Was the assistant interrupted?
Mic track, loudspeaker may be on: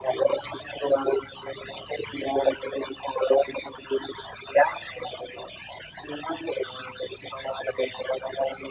No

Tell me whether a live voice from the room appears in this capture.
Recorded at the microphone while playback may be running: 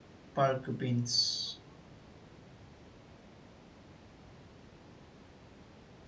Yes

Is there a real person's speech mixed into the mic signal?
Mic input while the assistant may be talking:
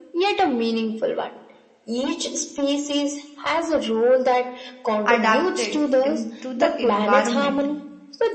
Yes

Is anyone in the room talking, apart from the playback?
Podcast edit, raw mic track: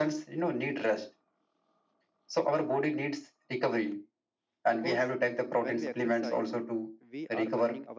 Yes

